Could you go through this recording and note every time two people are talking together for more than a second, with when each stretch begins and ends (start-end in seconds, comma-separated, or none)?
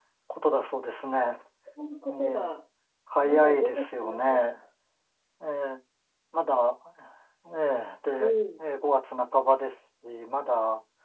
3.2-4.6